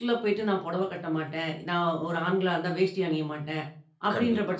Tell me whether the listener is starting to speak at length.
No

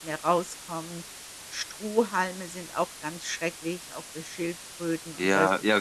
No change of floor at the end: No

